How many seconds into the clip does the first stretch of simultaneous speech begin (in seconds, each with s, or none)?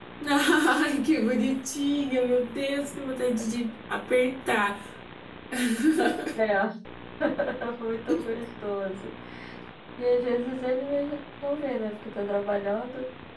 none